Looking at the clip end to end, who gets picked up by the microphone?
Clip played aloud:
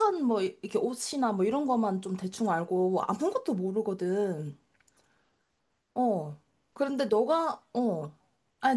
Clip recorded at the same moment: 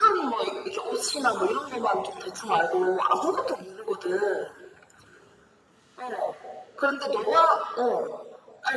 echo only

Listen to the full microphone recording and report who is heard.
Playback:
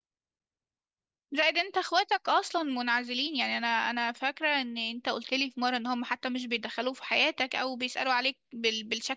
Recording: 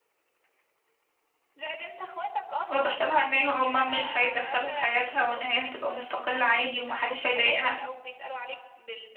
both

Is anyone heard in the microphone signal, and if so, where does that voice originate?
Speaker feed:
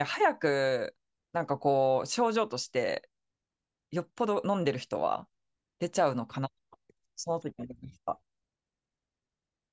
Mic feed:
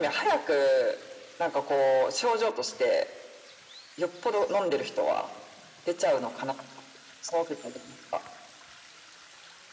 echo only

